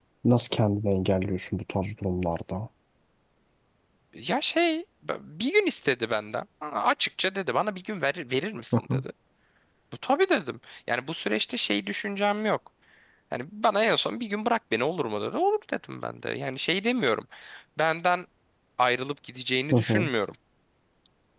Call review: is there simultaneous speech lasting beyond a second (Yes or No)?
No